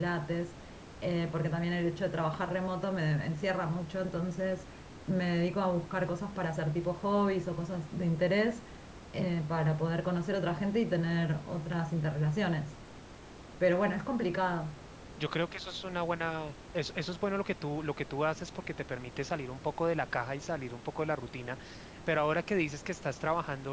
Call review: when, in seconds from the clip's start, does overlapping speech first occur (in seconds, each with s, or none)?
none